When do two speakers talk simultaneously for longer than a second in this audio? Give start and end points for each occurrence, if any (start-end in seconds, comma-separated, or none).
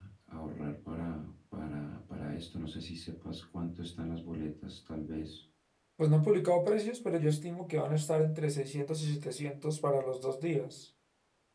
none